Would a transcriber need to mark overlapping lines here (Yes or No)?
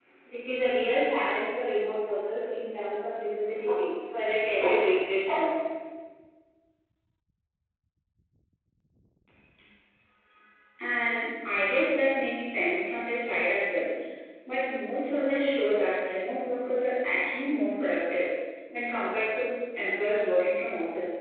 No